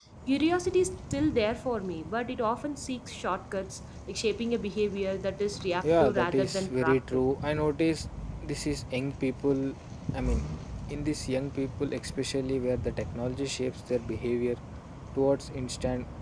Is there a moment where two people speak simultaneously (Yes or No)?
Yes